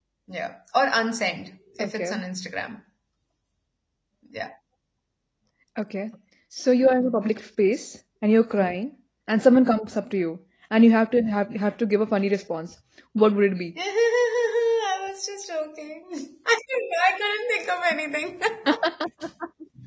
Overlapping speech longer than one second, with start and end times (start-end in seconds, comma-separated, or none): none